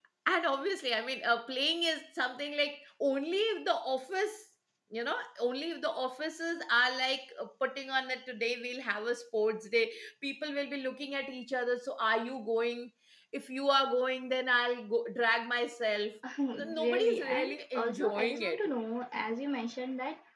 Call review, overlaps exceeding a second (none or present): present